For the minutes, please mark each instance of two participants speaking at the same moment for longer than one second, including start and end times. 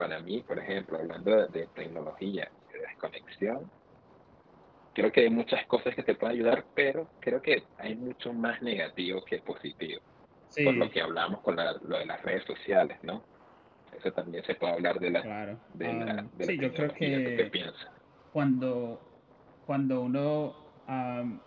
15.8-17.5

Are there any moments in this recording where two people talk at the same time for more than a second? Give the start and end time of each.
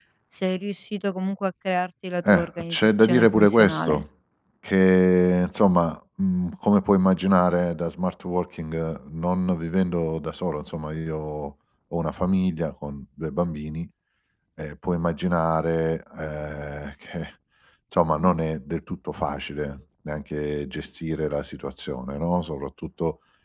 2.3-4.0

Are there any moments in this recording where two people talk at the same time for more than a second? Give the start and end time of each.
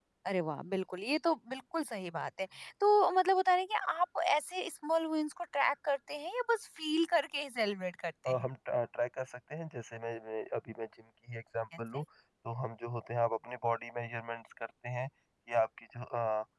none

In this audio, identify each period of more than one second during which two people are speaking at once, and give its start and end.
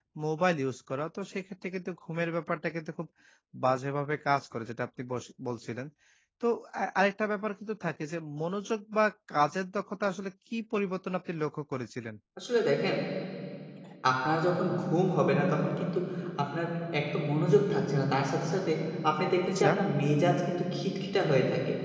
none

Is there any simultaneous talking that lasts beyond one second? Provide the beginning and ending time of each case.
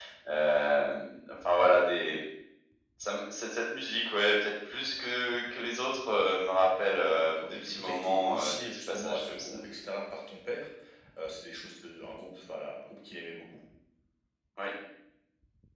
6.9-9.5

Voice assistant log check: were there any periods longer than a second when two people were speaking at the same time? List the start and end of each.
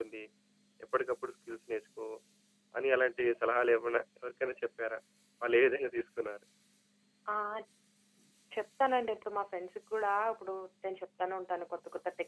none

